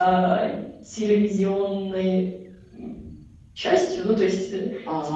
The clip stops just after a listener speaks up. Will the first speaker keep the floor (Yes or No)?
No